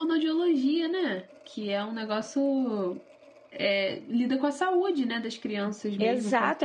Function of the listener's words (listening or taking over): taking over